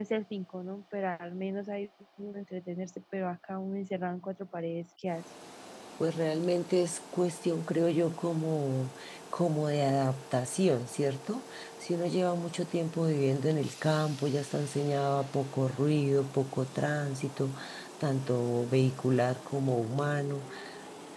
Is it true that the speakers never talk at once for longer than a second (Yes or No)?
Yes